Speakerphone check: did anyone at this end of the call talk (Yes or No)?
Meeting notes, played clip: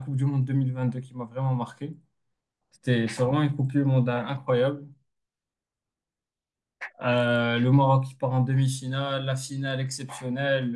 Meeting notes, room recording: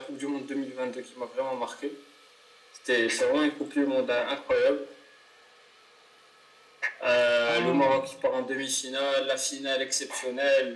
Yes